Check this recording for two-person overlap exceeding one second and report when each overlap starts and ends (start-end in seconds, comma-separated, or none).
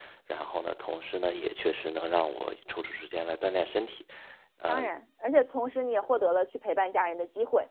none